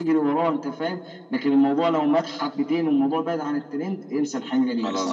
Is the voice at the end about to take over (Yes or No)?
No